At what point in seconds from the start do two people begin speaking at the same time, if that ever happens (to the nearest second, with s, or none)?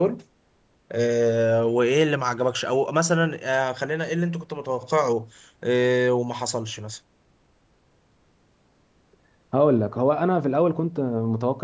none